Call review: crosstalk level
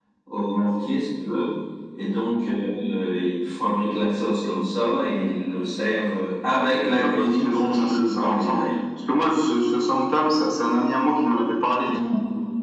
present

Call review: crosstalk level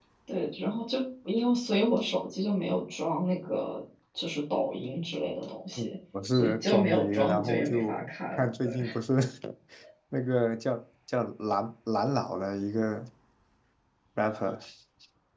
present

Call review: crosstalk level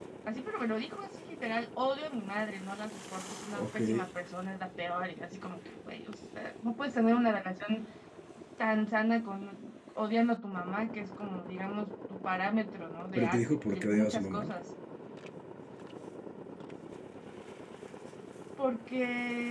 present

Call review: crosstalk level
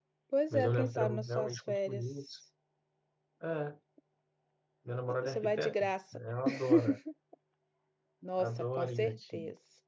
present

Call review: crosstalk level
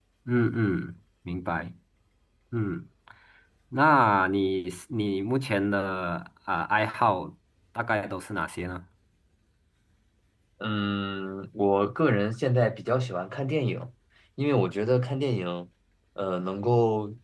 none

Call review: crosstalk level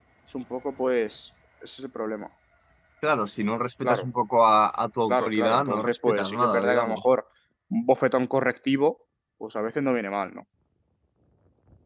present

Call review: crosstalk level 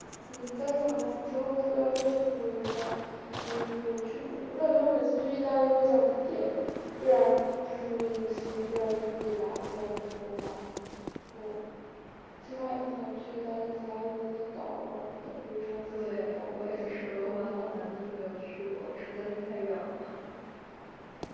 present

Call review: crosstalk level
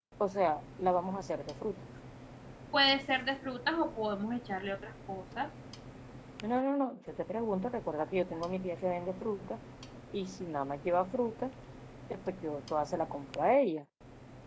none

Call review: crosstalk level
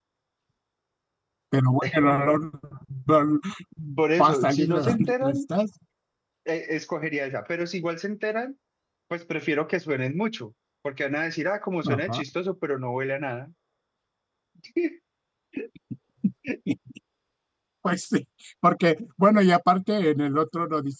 present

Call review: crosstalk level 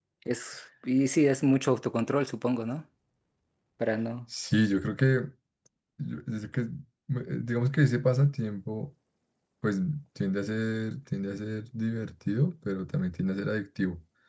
none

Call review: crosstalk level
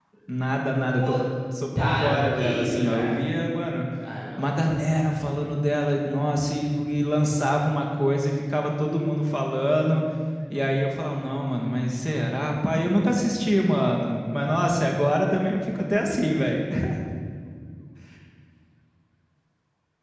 present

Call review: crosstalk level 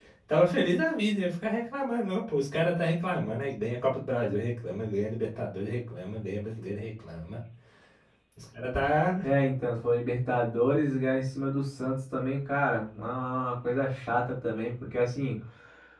none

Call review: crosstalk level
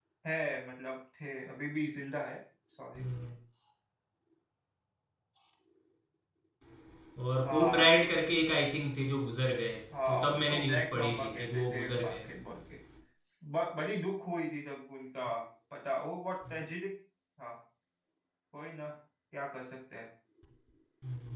present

